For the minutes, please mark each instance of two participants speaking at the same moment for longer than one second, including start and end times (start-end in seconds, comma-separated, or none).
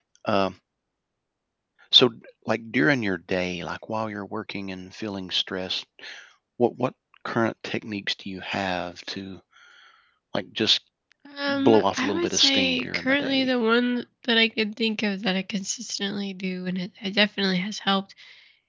11.5-13.5